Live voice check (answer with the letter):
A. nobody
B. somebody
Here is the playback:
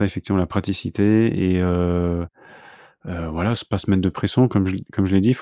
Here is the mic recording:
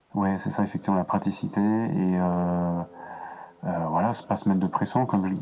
A